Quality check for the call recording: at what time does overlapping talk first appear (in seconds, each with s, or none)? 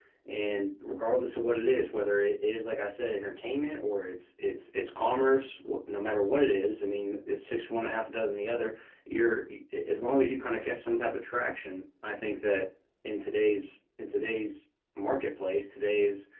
none